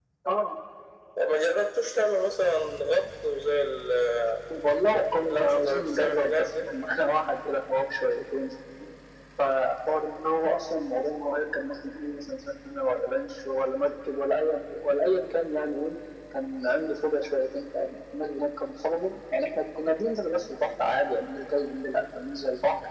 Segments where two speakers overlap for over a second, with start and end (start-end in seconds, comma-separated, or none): 5.2-6.5